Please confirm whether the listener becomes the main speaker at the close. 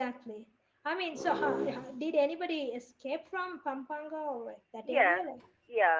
Yes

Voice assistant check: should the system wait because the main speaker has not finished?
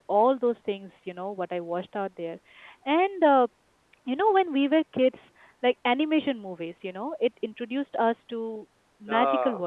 Yes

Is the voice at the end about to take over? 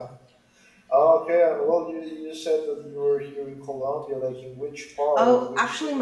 Yes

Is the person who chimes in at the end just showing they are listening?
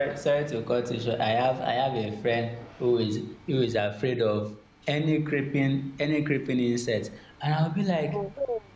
Yes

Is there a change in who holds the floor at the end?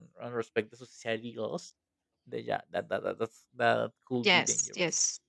Yes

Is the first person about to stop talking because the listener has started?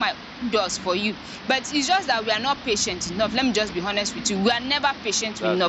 No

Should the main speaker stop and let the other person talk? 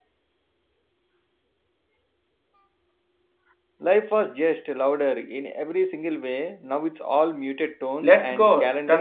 Yes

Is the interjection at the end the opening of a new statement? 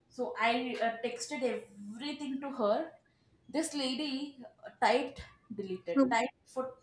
No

